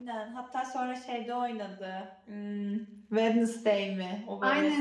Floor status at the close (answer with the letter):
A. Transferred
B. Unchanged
A